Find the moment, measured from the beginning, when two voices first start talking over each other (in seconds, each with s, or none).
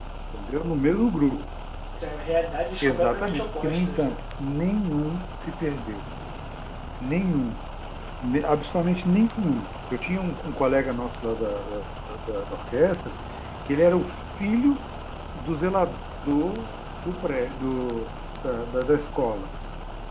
2.8 s